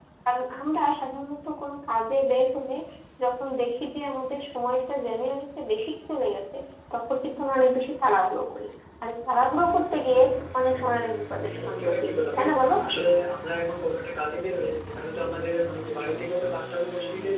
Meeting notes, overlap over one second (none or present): present